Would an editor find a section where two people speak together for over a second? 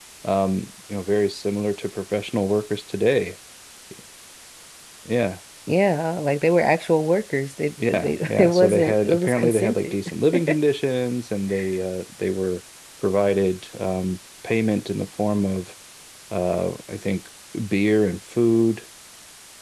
Yes, from 7.9 s

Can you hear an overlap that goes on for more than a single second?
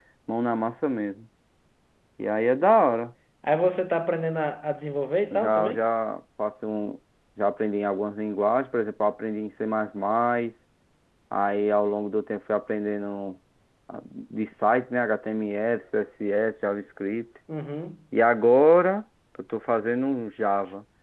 No

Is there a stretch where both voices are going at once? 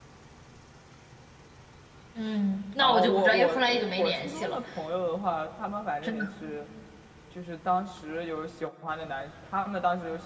Yes, from 2.8 s

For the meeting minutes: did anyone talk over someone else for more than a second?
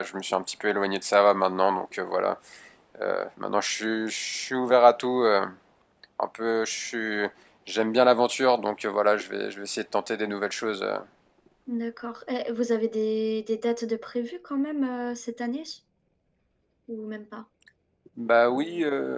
No

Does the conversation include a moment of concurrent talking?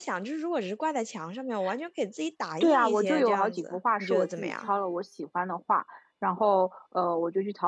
Yes, from 2.6 s

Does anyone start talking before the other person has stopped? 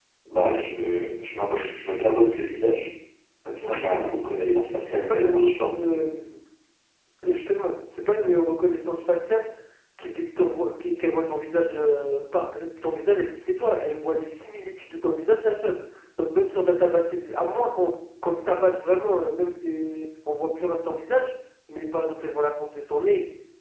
Yes, from 3.6 s

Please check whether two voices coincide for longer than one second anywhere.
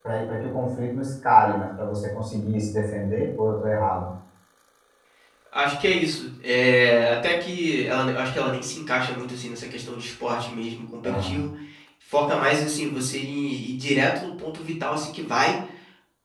No

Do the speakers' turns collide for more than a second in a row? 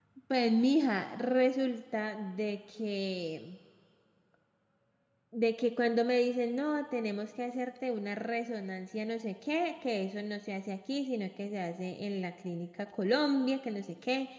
No

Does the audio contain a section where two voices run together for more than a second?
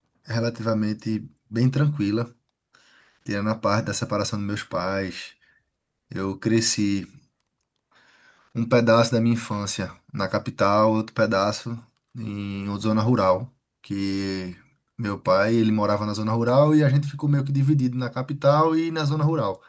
No

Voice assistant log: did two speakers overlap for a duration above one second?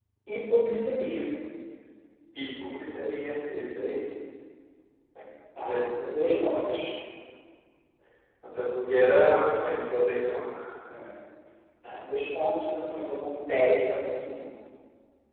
Yes, from 5.6 s

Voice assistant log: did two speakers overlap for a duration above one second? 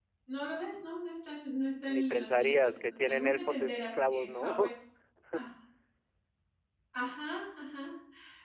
Yes, from 1.8 s

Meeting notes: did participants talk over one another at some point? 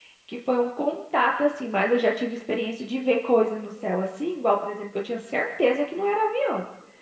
No

